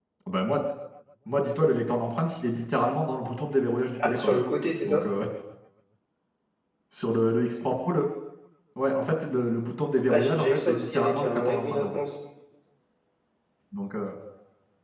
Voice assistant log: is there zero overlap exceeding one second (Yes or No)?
No